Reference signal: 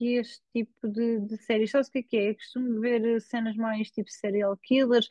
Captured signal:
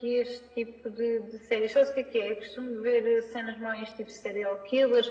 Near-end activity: none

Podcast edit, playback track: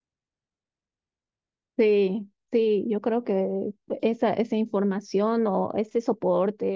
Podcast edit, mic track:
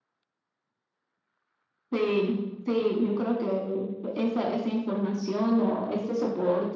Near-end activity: none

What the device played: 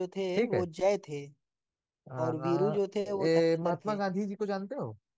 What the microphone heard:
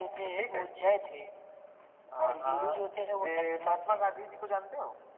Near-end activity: none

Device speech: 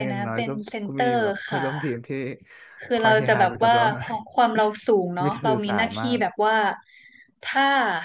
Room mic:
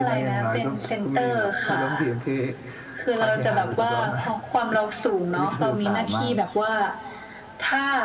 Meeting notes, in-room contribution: none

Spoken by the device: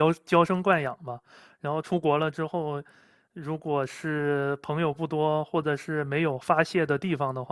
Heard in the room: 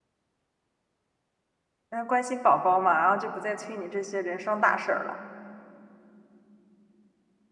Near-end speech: present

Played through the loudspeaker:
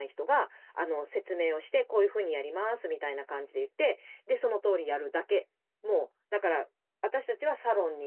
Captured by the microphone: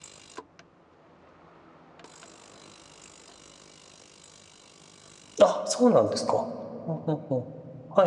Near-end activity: present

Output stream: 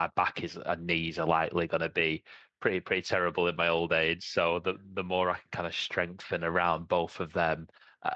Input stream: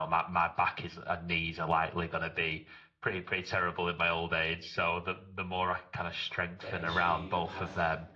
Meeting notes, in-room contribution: present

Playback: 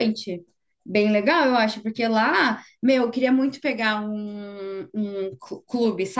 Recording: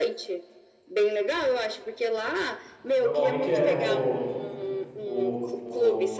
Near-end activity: present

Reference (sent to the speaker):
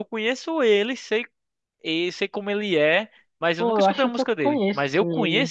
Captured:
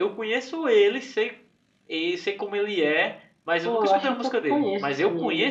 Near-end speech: none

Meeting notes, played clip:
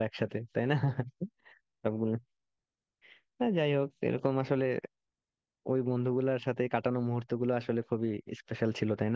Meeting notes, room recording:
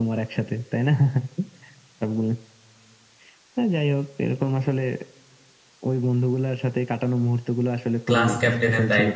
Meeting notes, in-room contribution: present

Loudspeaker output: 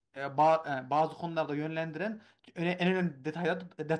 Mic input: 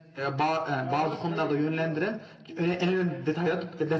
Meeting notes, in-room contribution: present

